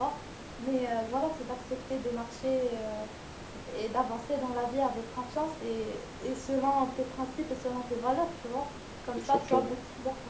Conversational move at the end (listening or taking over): listening